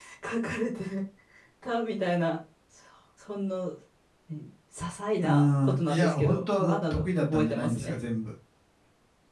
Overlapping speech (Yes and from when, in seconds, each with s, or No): Yes, from 5.2 s